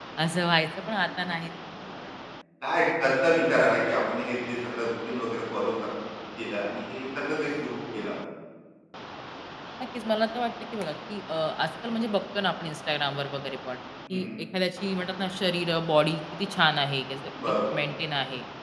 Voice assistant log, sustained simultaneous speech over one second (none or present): none